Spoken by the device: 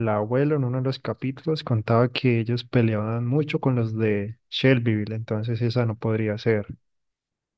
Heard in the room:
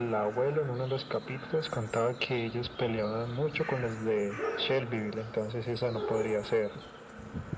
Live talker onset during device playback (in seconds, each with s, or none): none